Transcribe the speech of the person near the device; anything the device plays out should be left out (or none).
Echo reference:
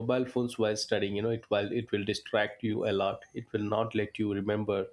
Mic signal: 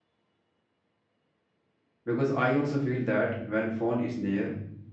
because I also feel that when phone is near,